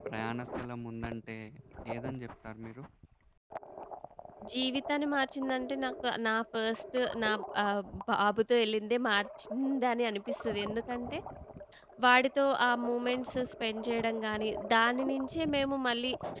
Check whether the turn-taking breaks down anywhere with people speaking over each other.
No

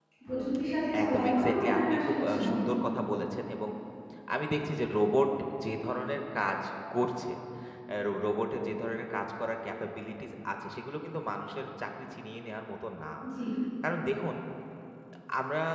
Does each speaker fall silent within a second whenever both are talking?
No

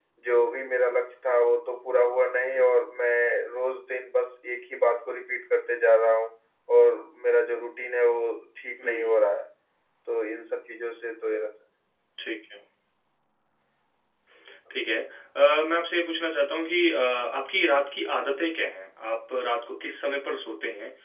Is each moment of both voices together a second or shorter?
Yes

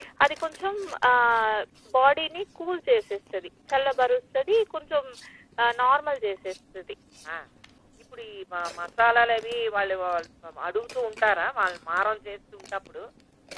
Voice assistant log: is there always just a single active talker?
Yes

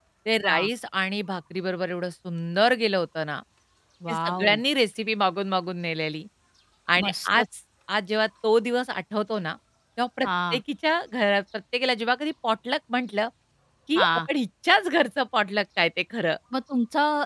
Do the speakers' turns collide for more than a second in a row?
No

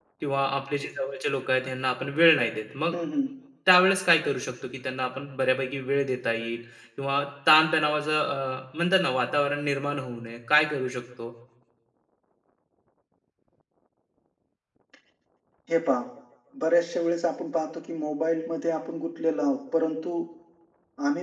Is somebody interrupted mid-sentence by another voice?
No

